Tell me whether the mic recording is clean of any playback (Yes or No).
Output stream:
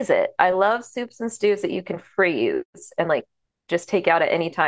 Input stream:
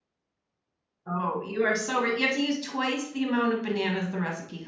Yes